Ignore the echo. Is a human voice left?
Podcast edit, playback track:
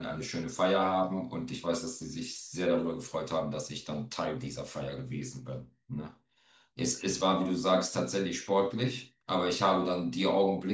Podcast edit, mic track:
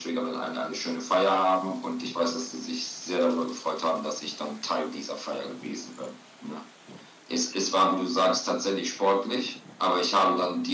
No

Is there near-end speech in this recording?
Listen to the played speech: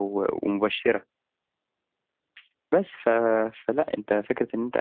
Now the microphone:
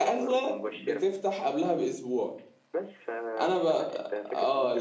Yes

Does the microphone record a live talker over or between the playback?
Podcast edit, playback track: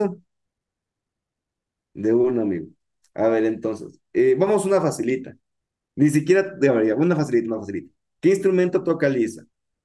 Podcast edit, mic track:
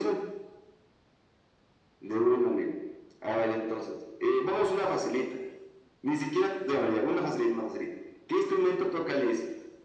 No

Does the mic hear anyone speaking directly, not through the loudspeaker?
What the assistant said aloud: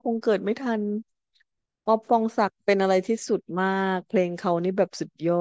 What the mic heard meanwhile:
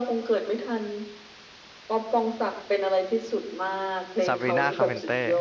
Yes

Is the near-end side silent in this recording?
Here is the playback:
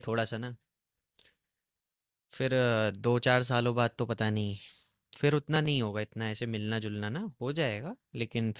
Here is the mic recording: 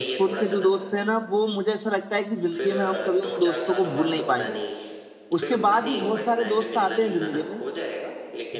No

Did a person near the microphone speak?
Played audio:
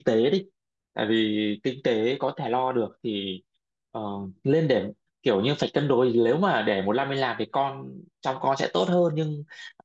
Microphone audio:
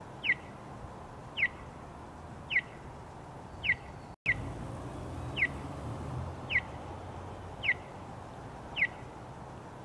No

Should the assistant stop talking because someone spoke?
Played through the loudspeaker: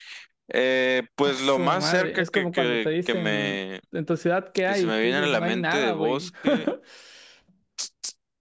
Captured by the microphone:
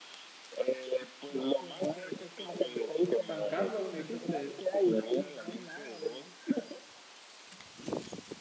Yes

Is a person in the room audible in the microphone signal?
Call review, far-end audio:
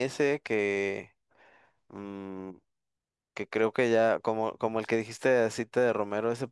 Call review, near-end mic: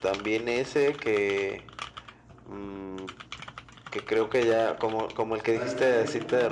Yes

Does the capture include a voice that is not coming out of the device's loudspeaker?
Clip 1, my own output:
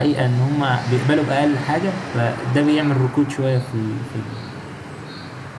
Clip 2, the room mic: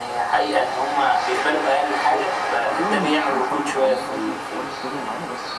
Yes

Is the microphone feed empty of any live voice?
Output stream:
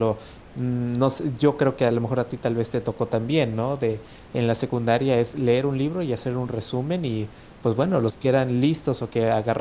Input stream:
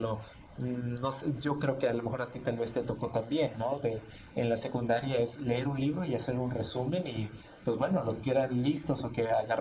Yes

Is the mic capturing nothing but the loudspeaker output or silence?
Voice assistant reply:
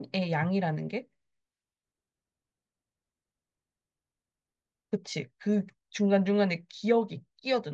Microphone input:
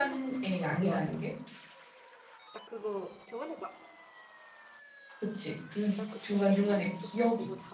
No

